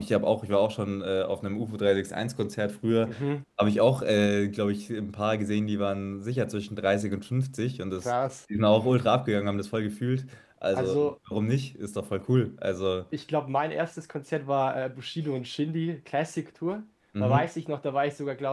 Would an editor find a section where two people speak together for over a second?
No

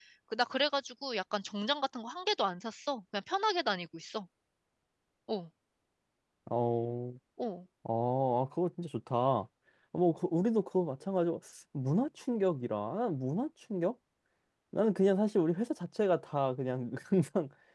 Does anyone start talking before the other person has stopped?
No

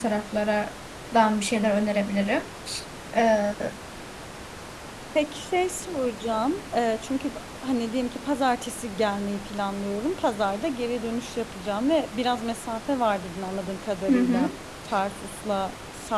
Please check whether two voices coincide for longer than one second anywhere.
No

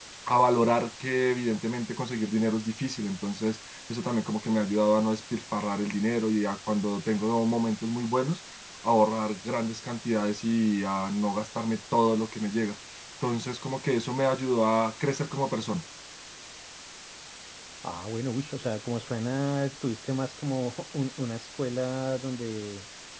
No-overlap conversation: Yes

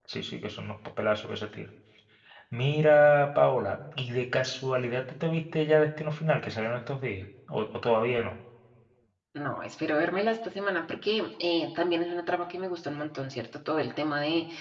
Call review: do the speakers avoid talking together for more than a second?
Yes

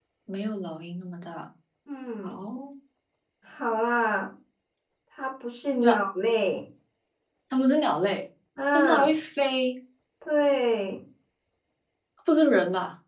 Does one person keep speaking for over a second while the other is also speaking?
No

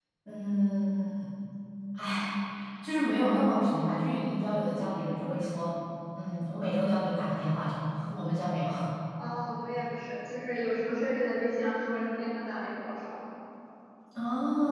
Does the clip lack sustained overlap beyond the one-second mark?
Yes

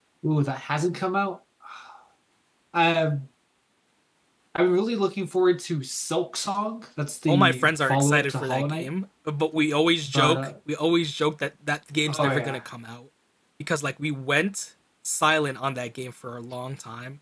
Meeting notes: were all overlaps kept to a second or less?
No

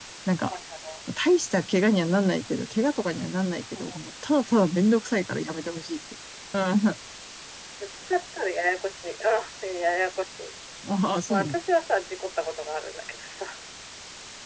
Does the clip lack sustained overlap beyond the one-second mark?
Yes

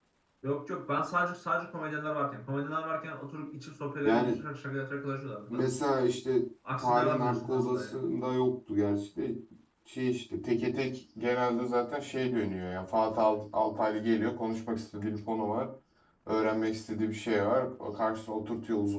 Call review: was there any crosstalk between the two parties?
Yes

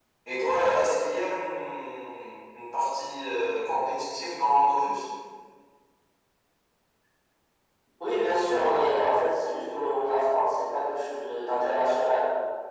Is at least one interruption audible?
No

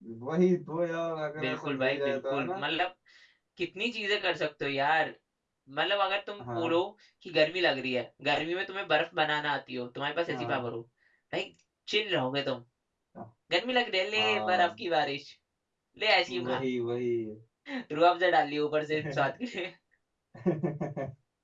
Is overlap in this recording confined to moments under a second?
No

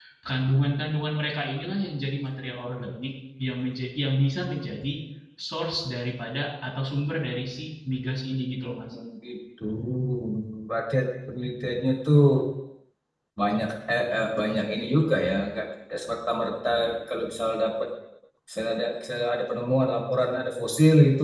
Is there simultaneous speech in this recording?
No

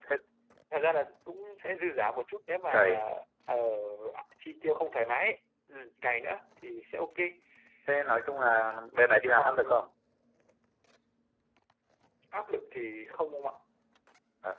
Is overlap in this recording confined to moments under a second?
Yes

